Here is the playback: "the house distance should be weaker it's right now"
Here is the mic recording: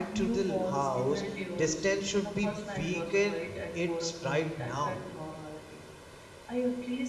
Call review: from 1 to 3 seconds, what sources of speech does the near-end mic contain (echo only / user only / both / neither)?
both